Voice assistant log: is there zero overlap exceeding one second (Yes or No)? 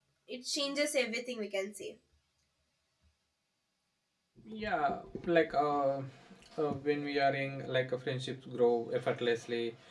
Yes